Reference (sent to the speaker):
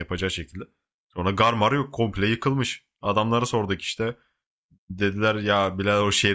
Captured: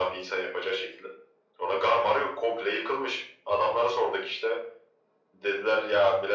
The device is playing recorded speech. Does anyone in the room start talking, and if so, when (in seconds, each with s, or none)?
none